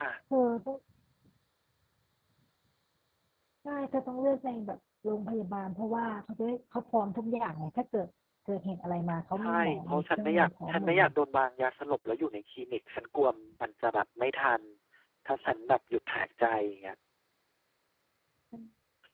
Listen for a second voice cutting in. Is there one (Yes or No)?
Yes